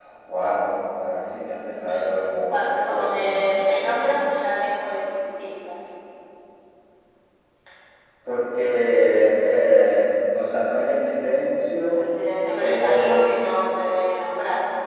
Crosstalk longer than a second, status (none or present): present